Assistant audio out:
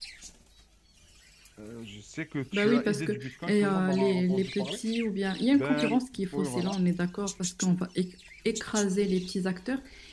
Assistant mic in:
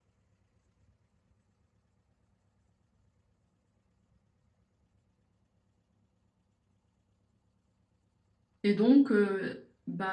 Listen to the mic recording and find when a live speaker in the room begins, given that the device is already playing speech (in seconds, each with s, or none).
8.6 s